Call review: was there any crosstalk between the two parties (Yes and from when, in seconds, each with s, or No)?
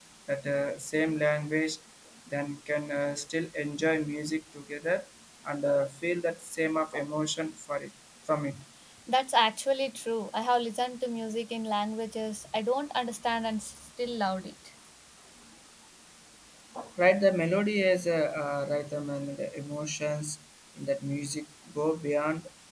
No